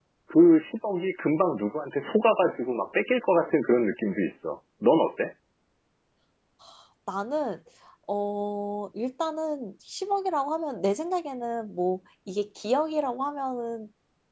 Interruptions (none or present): none